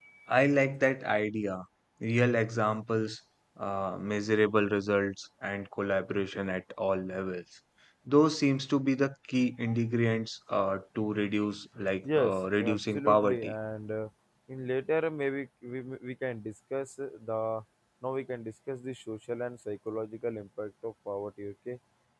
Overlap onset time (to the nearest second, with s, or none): 12 s